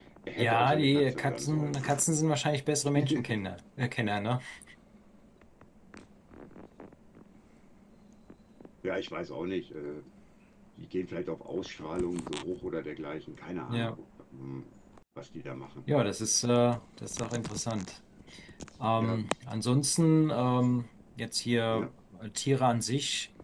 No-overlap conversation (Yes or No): No